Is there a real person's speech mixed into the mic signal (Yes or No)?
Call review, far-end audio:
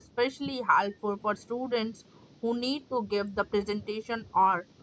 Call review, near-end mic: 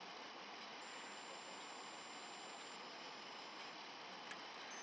No